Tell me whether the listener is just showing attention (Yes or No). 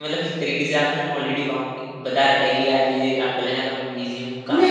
No